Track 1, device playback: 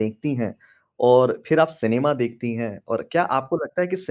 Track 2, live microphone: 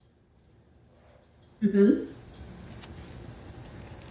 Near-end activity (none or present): present